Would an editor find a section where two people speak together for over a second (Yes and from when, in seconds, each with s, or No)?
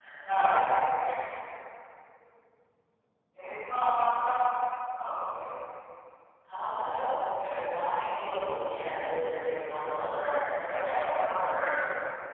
No